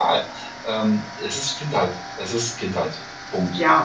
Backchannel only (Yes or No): No